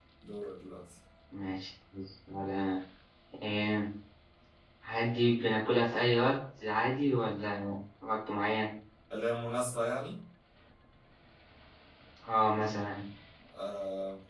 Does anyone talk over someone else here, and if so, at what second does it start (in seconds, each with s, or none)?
none